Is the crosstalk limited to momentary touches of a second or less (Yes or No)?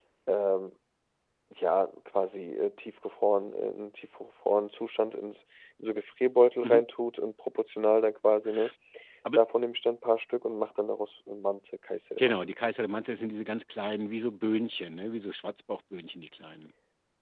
Yes